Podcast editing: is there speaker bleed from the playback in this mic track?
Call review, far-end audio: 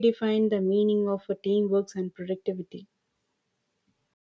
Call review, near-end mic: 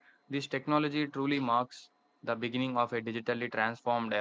No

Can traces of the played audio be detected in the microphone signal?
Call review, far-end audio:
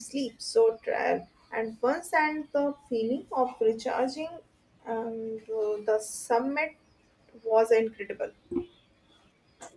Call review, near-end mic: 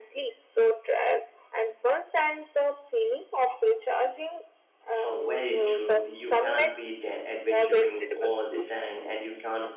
Yes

